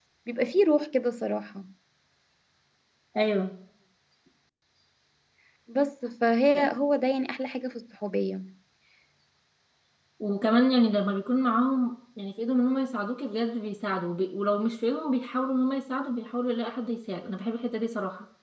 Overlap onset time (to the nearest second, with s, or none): none